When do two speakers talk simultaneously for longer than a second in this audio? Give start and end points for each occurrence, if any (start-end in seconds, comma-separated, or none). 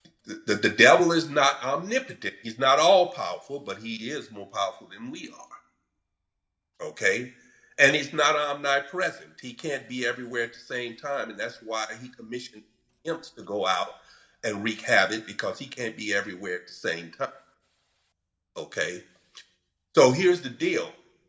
none